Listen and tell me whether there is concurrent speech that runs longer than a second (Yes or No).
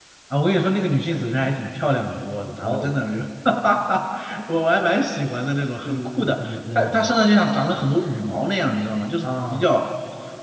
Yes